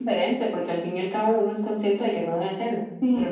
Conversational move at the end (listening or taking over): taking over